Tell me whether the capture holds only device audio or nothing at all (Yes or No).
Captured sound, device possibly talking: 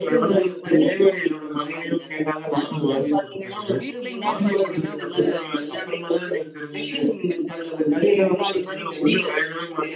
No